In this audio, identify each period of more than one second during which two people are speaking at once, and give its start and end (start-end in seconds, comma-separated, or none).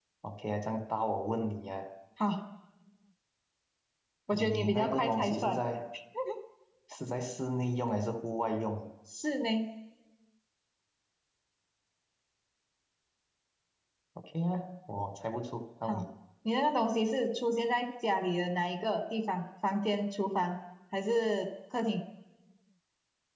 4.3-5.6